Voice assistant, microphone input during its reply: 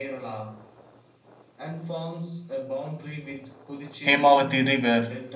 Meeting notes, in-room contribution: present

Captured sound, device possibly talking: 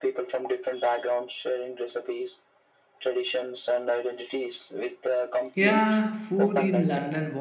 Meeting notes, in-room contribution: present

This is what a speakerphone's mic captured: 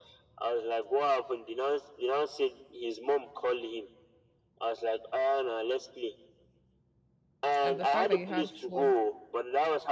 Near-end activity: present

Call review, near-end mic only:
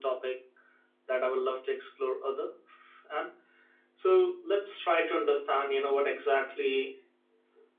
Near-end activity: none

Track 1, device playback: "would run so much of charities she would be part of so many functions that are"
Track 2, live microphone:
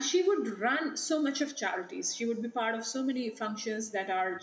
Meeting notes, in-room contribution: none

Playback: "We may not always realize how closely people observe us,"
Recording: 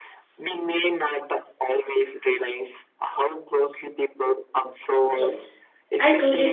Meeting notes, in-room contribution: present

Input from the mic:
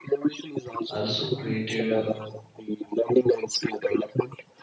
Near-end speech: present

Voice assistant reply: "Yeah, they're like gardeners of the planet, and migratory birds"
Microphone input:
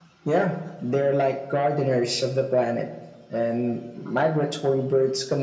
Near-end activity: none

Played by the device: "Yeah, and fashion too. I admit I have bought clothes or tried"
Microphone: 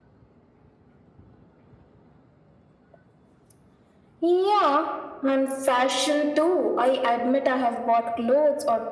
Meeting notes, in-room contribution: none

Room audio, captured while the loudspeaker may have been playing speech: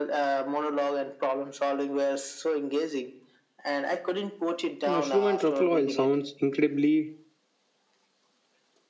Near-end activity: present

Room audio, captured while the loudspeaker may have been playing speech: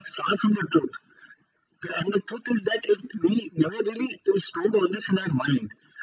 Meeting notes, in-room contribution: none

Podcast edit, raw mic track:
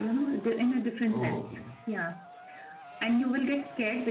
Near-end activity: present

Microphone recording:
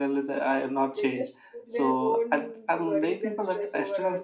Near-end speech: present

